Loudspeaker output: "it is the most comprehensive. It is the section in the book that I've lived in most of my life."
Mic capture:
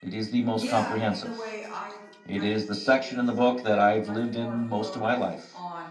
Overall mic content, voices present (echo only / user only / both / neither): both